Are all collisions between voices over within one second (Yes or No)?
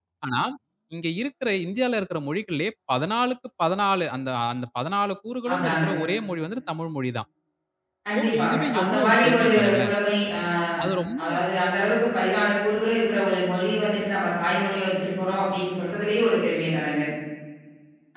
No